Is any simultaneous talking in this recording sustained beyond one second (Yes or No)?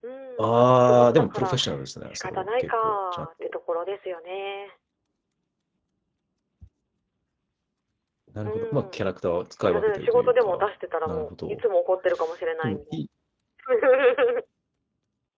Yes